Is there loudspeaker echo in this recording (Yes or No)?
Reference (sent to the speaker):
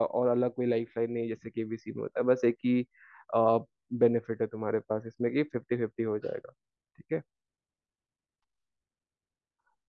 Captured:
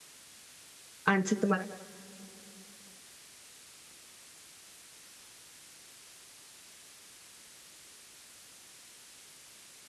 No